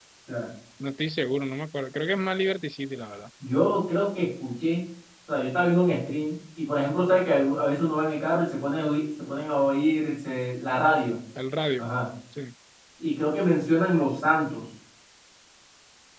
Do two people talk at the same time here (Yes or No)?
No